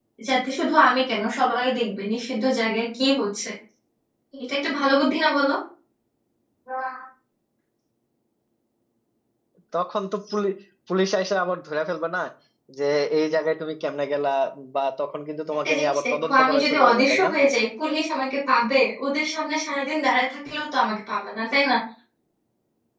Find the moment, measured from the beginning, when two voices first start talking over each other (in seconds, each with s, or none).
15.7 s